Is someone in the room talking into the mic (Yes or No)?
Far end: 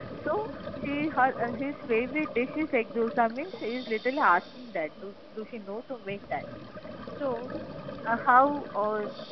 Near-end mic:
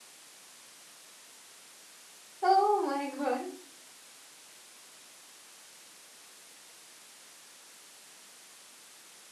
Yes